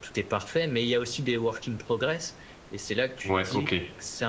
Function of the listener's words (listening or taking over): listening